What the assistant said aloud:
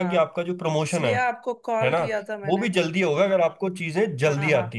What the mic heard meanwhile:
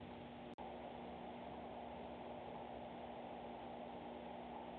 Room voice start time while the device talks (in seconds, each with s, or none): none